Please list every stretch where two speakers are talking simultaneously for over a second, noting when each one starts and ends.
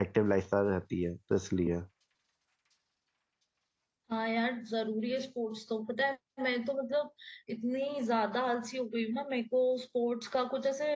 none

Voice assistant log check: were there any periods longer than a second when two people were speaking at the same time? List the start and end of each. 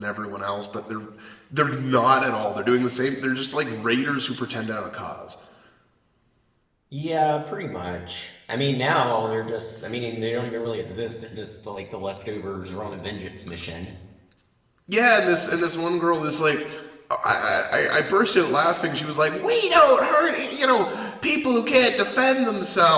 none

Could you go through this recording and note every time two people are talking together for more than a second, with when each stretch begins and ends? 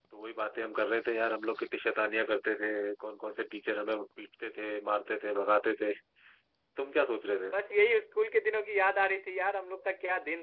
none

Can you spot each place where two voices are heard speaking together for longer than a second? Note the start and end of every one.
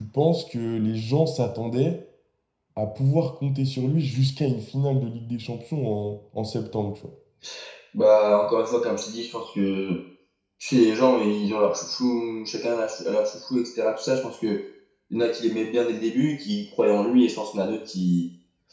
none

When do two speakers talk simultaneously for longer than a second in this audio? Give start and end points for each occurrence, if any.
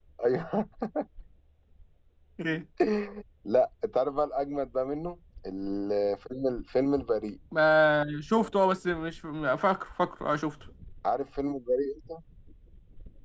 none

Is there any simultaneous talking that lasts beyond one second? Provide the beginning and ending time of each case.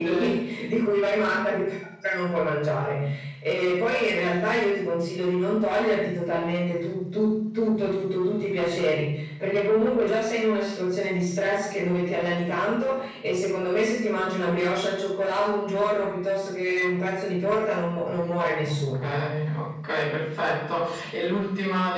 none

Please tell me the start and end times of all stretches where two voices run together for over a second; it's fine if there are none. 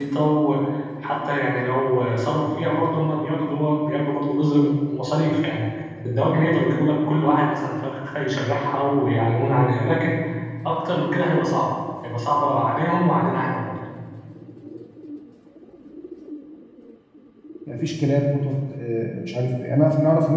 none

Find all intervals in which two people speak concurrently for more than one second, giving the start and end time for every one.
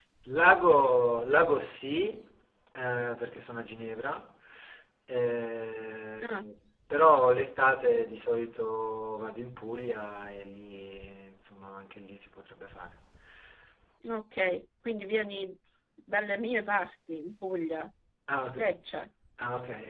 none

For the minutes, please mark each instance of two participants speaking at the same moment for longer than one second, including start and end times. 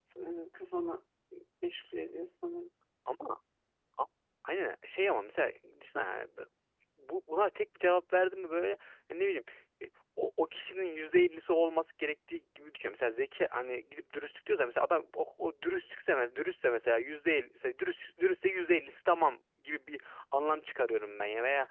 none

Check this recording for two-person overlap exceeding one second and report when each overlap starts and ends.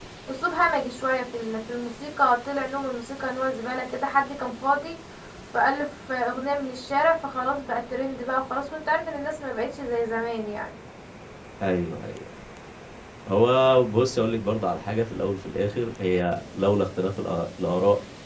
none

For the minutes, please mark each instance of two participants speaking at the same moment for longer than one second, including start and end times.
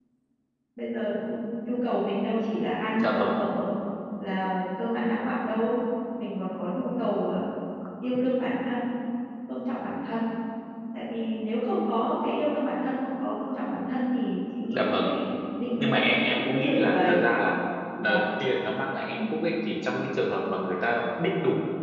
15.8-17.2

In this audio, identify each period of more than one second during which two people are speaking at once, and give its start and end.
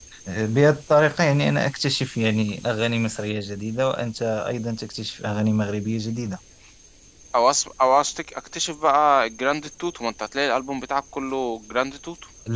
none

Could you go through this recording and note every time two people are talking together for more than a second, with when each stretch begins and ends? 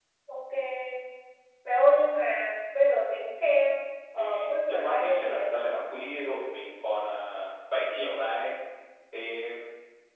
4.2-5.7

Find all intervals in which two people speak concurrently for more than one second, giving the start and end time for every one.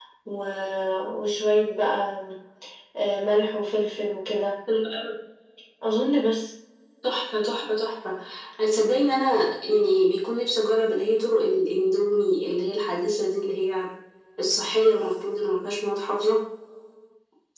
none

